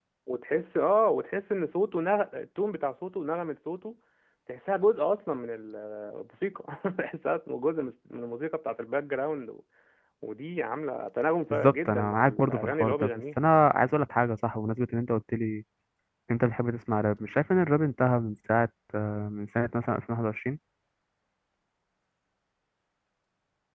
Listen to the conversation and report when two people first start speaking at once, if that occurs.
11.5 s

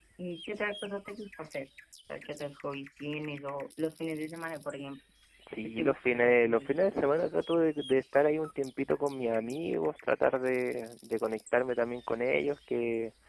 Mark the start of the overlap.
5.6 s

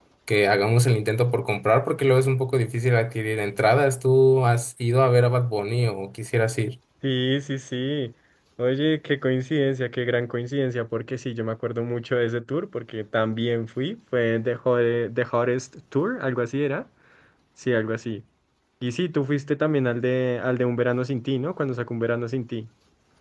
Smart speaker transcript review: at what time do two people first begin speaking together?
none

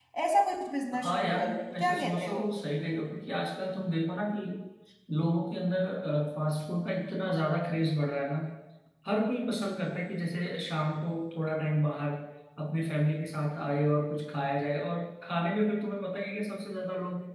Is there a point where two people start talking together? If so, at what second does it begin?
1.0 s

